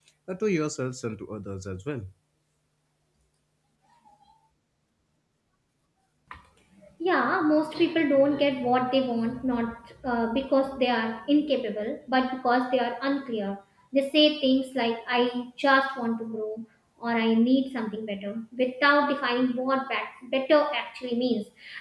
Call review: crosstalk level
none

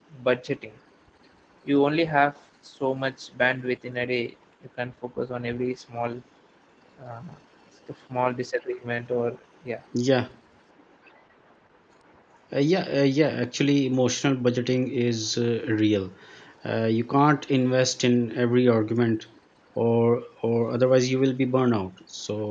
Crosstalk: none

